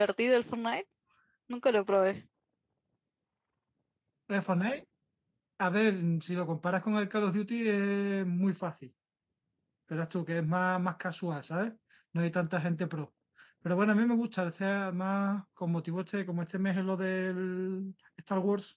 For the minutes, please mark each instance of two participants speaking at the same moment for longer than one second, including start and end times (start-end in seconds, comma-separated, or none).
none